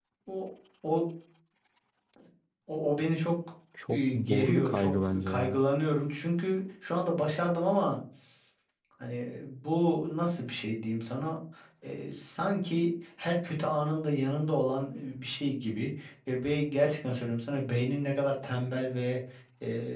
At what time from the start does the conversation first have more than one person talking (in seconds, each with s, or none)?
3.9 s